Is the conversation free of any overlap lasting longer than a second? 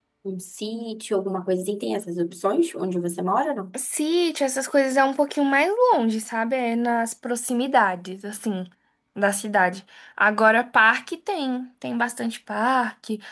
Yes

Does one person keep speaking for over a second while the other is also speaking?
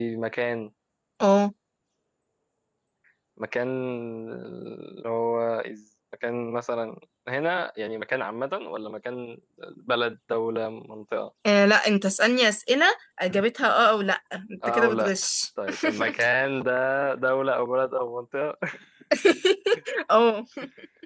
No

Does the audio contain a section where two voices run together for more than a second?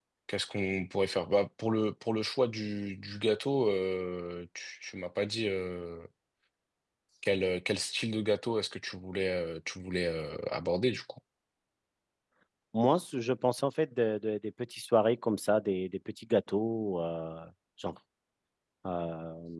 No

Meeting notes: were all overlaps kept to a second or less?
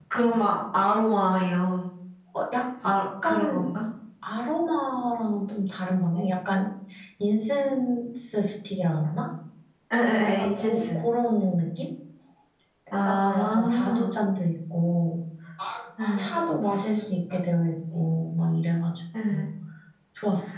No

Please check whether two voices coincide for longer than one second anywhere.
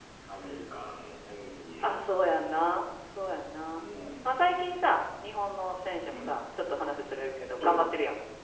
No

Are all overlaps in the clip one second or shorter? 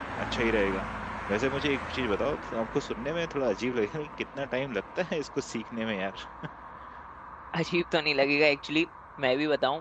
Yes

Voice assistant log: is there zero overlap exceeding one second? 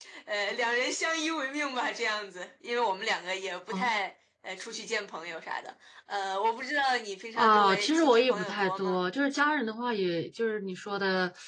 No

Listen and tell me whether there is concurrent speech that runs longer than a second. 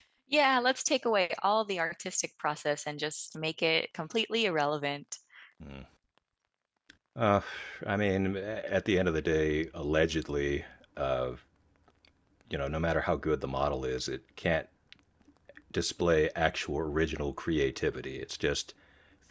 No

